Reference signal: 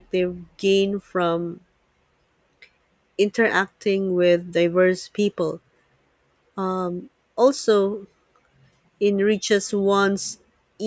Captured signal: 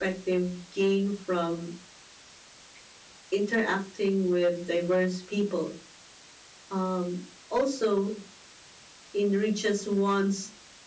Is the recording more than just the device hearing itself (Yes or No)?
No